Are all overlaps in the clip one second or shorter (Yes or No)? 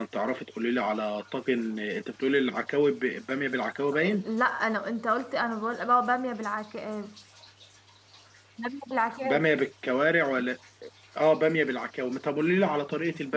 Yes